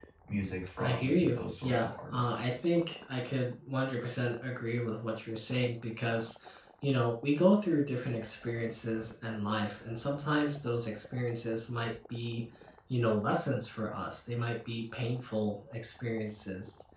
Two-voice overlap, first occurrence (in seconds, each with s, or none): 0.8 s